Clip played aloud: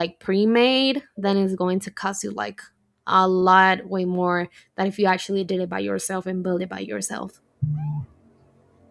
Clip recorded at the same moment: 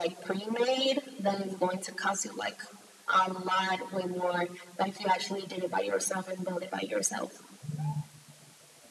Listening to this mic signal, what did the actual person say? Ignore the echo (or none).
none